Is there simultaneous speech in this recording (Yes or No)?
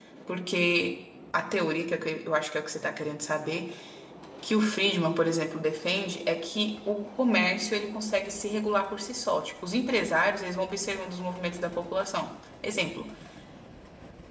No